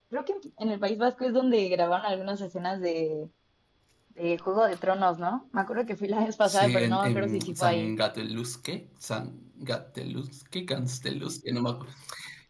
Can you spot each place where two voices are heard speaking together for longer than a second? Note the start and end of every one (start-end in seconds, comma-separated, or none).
6.4-7.9